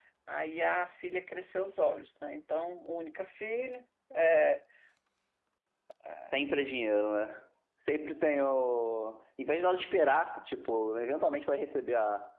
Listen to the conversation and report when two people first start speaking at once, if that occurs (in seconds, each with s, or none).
none